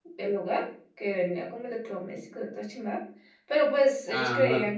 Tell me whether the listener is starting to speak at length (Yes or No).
No